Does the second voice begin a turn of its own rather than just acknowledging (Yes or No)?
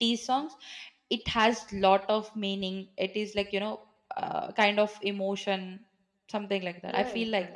Yes